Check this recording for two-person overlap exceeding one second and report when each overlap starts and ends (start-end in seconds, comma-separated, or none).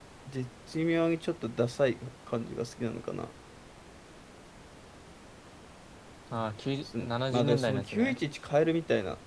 6.8-8.2